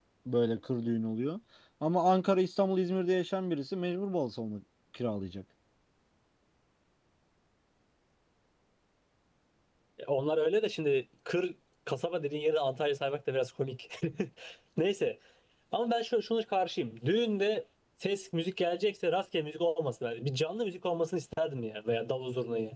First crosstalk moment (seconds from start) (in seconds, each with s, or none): none